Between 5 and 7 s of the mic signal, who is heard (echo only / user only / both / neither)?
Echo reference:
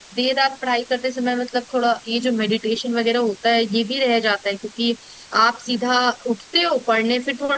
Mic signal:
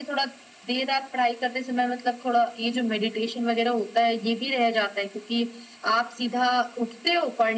echo only